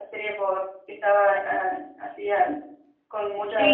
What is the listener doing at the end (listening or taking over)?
taking over